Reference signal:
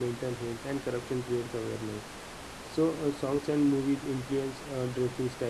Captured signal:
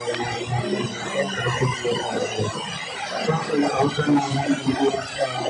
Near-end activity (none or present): present